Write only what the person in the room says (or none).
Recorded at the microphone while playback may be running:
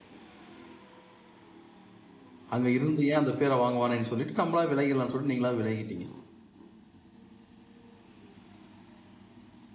அங்க இருந்து ஏன் அந்த பேர வாங்குவானேன்னு சொல்லிட்டு, நம்மளாவே விலகிரலாம்ன்னு சொல்லிட்டு நீங்களாவே விலகிட்டீங்க!